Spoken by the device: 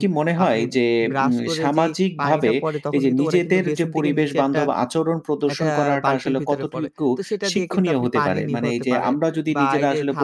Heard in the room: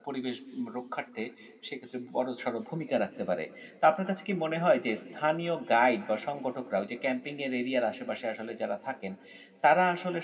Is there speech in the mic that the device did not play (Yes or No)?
Yes